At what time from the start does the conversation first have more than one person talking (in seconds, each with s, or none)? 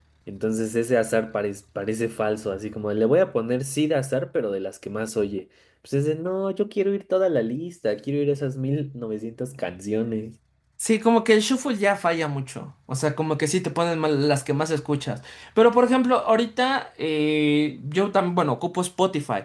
none